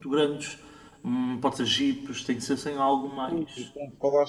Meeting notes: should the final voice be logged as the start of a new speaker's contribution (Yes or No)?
Yes